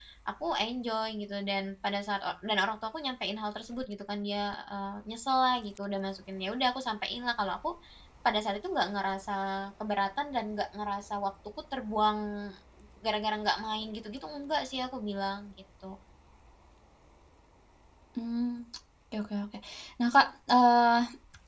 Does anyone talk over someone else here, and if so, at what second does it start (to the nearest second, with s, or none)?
none